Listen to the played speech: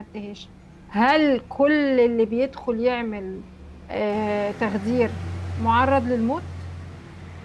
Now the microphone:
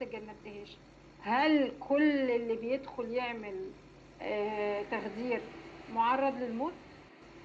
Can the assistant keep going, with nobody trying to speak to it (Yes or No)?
Yes